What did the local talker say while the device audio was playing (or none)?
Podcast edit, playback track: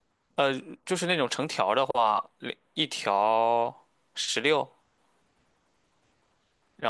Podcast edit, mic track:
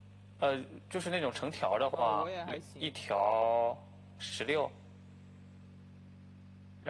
啊，我也还行。